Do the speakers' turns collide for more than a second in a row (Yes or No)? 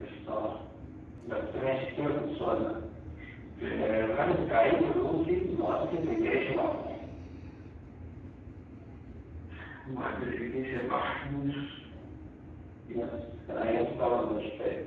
No